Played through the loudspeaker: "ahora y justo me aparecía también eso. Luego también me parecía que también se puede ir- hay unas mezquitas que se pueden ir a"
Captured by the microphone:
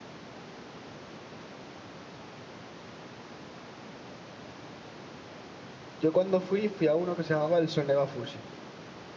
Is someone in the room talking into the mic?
Yes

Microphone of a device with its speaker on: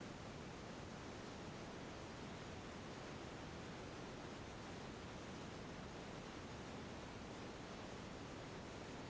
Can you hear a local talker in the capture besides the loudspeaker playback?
No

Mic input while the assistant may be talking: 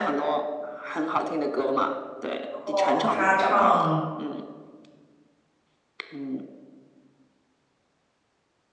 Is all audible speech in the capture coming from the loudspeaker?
No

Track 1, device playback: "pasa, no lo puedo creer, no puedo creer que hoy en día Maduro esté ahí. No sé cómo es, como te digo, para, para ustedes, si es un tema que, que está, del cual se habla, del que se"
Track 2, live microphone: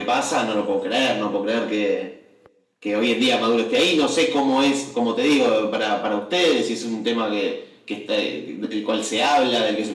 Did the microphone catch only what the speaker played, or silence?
Yes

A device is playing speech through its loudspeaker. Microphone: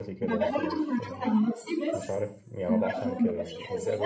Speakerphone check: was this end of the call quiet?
No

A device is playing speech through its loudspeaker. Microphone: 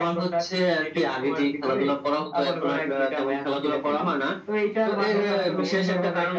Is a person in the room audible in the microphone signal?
Yes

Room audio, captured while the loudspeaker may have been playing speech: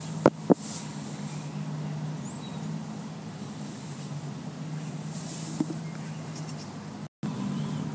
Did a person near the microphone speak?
No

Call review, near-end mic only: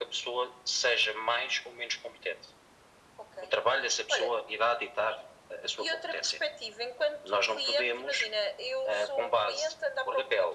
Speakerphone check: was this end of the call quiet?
Yes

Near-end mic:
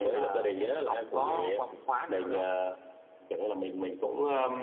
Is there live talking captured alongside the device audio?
No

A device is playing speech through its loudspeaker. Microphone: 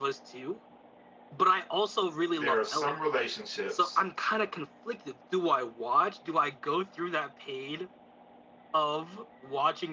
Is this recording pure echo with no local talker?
No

